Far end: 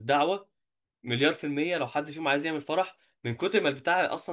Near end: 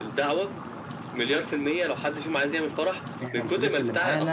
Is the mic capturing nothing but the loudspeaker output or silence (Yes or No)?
No